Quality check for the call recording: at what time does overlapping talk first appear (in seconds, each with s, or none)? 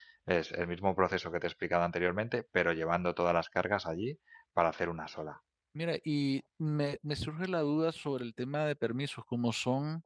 none